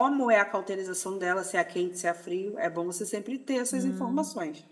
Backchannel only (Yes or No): No